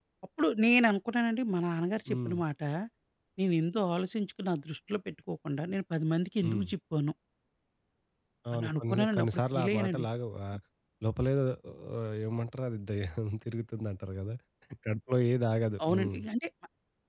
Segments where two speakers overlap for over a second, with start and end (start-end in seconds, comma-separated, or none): 8.5-10.0